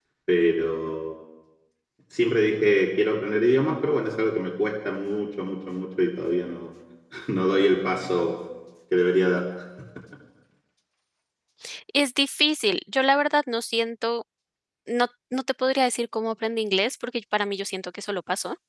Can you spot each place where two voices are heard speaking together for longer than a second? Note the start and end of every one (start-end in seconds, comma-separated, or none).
none